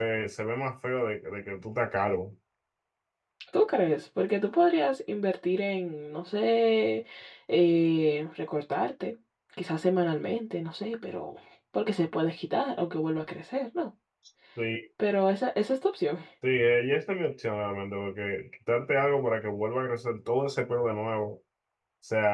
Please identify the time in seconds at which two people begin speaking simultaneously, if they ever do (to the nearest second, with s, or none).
none